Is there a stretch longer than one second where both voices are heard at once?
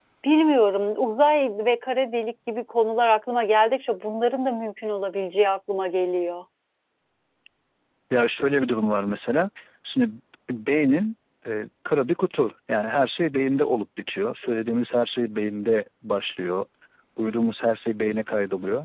No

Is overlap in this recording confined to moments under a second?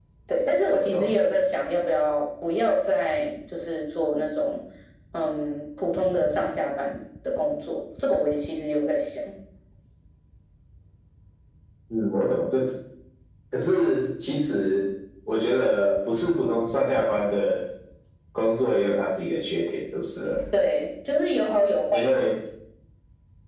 Yes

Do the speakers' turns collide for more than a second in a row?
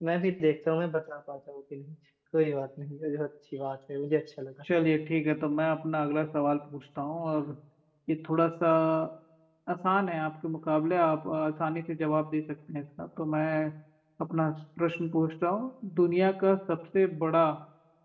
No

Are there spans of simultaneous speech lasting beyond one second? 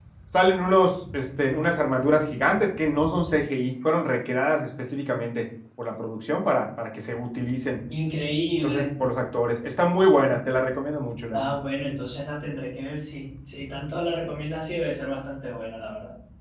No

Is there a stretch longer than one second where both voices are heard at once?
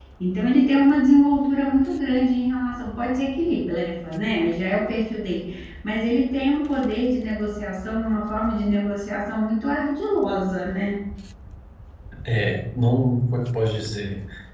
No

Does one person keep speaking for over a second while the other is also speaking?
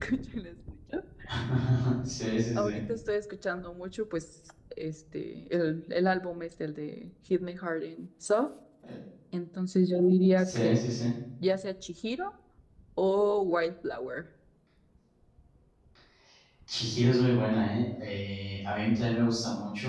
No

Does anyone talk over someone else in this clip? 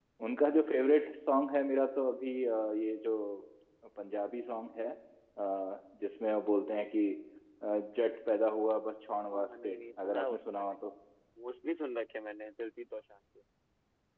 Yes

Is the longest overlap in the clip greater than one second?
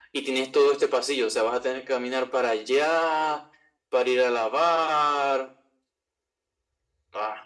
No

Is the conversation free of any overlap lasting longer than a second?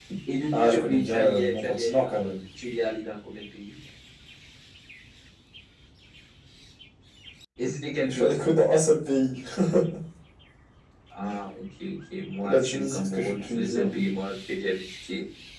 No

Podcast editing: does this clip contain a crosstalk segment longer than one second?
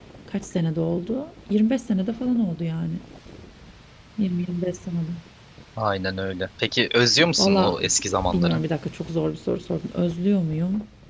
No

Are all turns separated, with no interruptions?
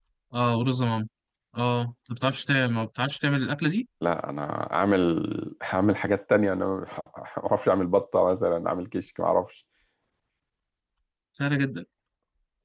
Yes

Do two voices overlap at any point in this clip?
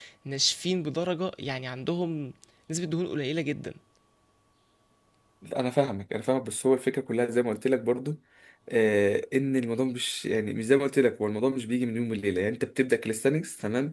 No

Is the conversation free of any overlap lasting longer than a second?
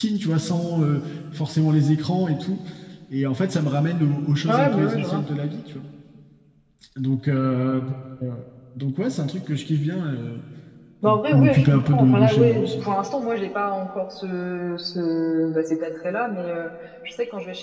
No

